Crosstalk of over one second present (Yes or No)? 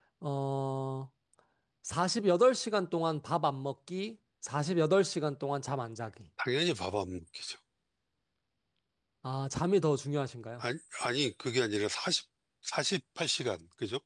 No